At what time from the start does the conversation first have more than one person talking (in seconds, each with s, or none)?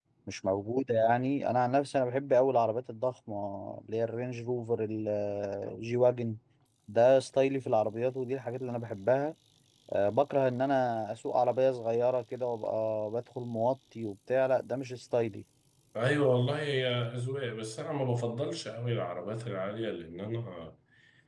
none